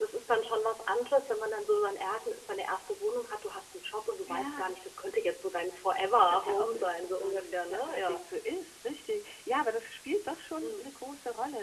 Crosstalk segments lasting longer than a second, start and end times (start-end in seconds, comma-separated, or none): 6.1-8.2